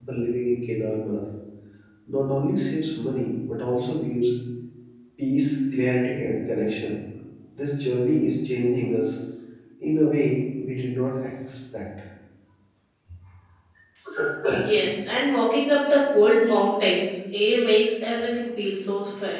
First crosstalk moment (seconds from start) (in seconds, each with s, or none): none